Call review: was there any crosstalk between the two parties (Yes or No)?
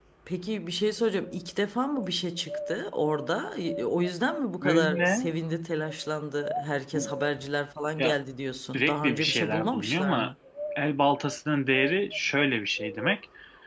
Yes